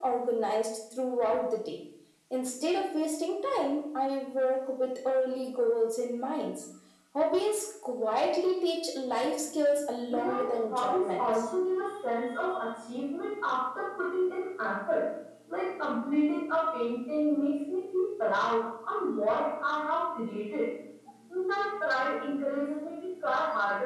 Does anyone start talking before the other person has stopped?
Yes, from 10.1 s

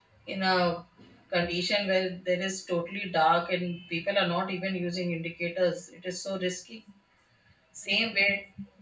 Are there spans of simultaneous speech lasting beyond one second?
No

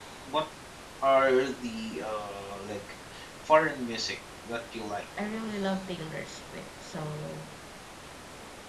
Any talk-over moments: No

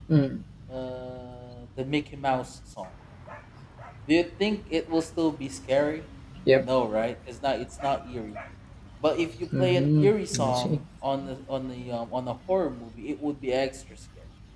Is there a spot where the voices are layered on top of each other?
Yes, from 9.6 s

